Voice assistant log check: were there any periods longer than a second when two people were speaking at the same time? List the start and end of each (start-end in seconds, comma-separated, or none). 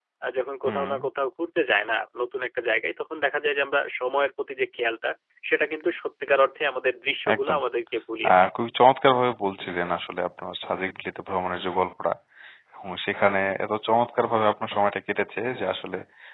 none